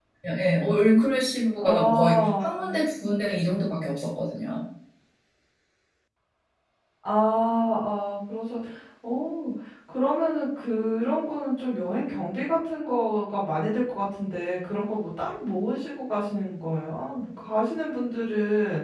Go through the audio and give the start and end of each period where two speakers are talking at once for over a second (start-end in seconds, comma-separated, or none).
1.6-2.8